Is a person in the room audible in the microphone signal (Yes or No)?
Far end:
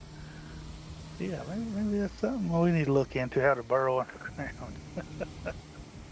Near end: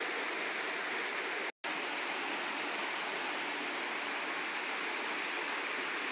No